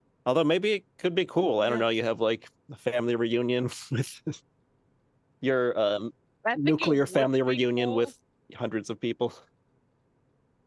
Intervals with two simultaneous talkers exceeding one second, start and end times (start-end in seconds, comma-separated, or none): 6.5-8.1